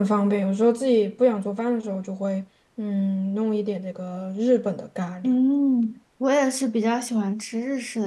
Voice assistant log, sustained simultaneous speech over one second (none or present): none